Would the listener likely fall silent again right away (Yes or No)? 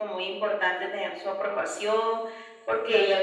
Yes